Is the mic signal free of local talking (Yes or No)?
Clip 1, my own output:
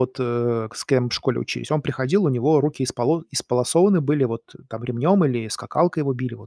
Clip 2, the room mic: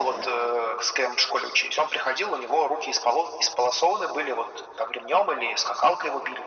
Yes